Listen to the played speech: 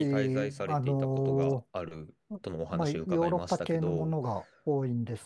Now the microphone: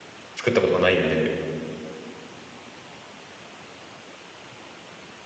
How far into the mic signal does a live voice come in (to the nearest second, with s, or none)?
0 s